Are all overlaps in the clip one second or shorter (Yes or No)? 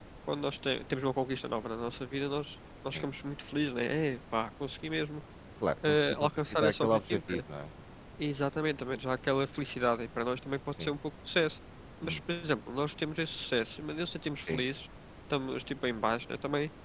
No